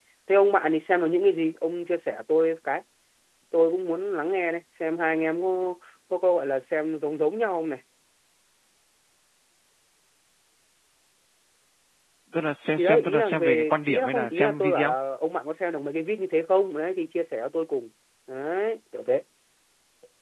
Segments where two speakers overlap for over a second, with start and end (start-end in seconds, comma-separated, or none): 12.8-14.9